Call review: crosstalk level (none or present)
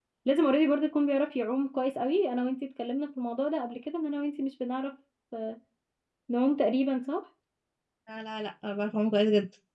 none